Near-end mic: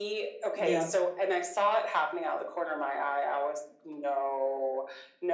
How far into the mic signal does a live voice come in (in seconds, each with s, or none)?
0.5 s